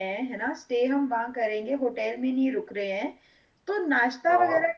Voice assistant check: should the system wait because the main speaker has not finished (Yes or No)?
Yes